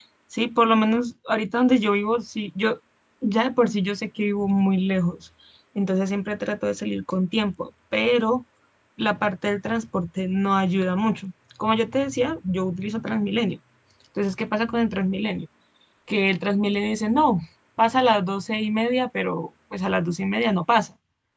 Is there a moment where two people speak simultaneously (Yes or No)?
No